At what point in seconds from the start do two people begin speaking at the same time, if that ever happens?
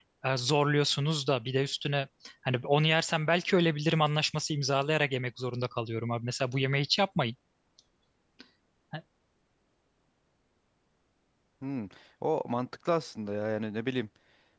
none

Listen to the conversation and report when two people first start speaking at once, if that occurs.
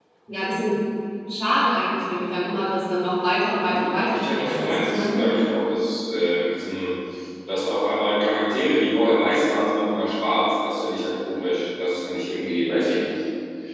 3.6 s

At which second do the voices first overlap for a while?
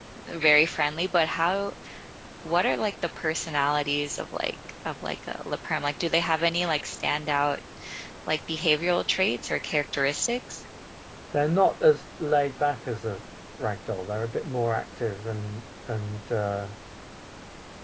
none

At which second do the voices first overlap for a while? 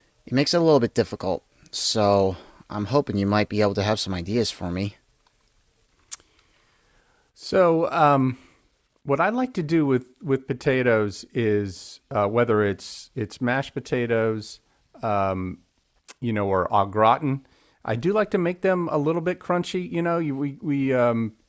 none

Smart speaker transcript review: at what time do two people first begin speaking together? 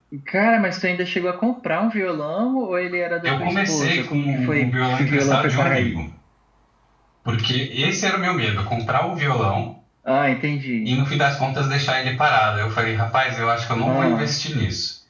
3.2 s

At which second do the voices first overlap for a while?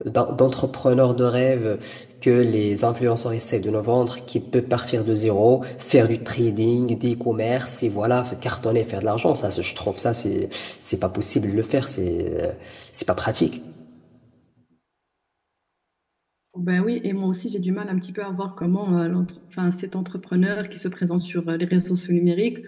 none

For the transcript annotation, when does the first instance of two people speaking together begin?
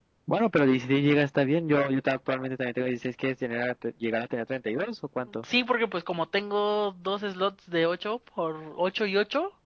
none

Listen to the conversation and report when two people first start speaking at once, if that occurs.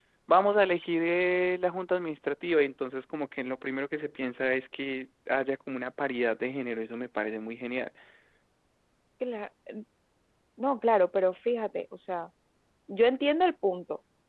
none

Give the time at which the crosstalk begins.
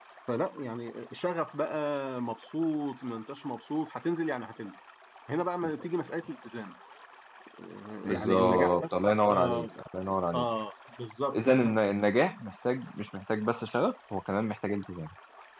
8.1 s

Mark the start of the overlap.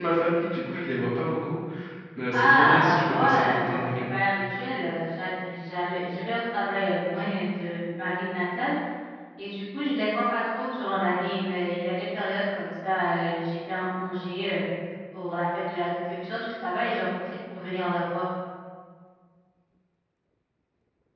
2.3 s

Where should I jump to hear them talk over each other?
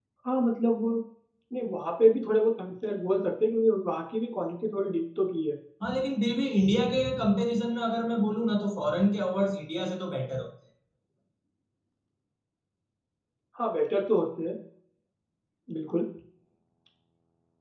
none

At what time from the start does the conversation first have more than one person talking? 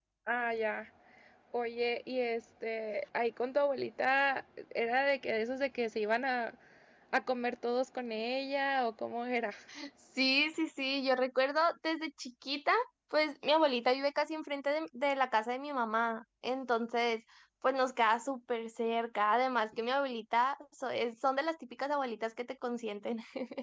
none

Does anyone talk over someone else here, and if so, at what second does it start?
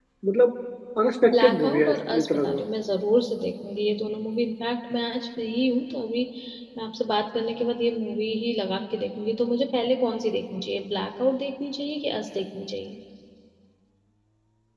1.4 s

